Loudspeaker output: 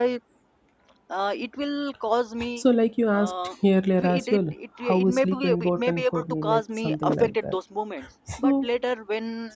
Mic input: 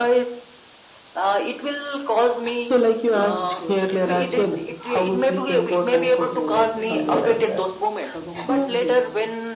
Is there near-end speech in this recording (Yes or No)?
Yes